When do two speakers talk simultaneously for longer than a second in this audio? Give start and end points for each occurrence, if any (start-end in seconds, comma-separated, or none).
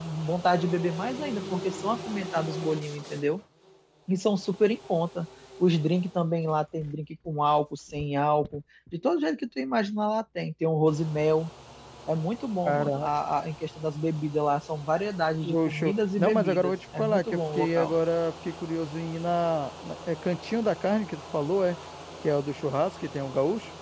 15.4-18.0